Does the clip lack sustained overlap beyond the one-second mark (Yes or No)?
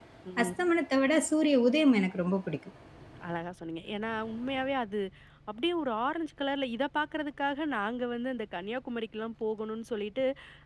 Yes